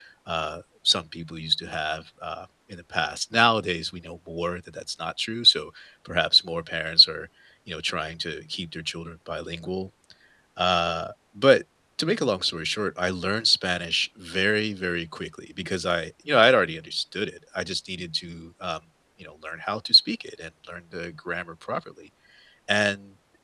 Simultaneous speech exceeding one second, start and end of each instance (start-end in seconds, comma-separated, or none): none